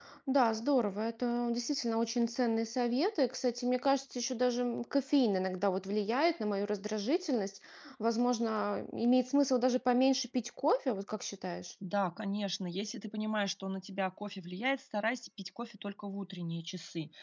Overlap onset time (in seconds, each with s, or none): none